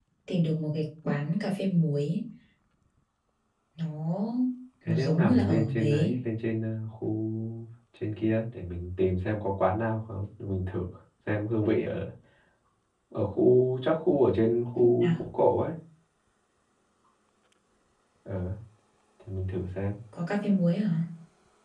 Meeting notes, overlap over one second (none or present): present